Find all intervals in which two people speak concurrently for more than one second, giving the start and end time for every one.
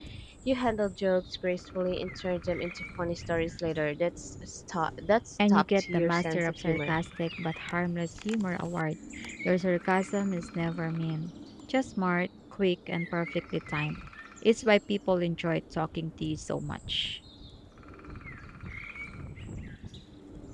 5.5-6.9

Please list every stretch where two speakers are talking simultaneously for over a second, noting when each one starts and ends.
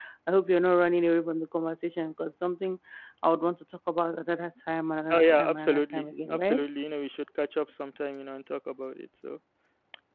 5.1-6.6

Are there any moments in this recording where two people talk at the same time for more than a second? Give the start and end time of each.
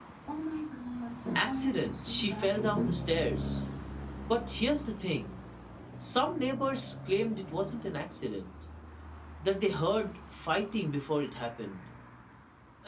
1.4-3.0

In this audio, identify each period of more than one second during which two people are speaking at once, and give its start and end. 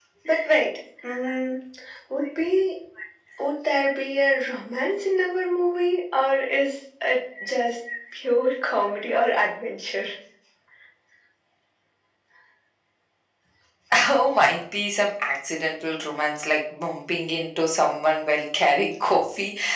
none

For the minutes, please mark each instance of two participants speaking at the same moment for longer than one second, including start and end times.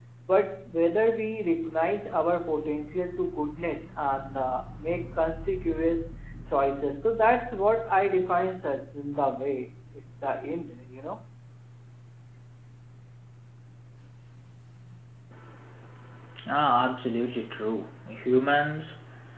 none

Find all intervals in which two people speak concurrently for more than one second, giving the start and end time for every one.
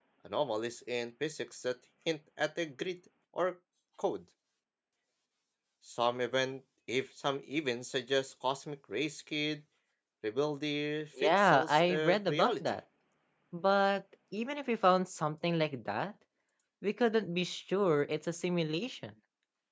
11.2-12.8

